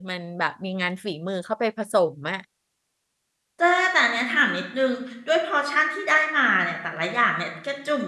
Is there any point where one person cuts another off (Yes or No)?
No